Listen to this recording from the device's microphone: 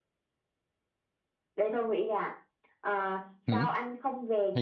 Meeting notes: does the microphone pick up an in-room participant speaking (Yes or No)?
Yes